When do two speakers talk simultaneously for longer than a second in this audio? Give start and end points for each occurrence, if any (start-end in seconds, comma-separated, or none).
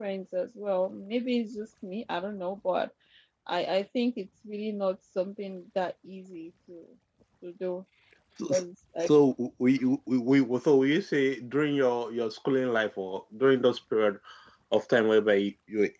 none